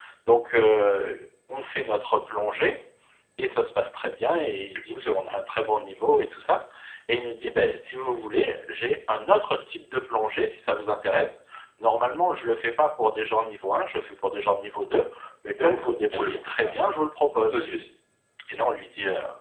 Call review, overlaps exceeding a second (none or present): present